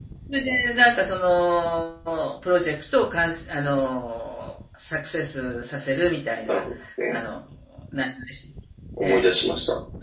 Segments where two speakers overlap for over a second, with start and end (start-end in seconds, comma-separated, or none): none